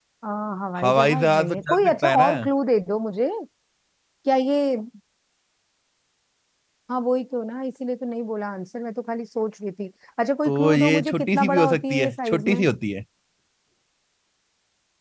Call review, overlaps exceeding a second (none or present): present